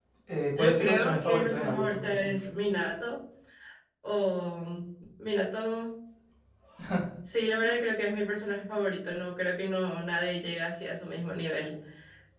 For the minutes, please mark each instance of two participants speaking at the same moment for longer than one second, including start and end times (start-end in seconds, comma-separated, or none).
0.5-2.3